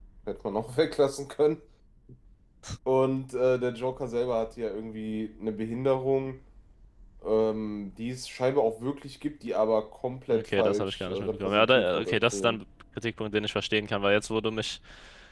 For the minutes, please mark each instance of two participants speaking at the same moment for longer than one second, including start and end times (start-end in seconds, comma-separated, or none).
10.3-12.6